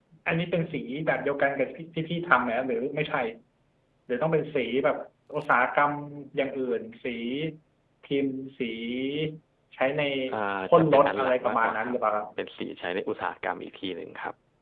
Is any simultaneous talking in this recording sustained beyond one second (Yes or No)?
Yes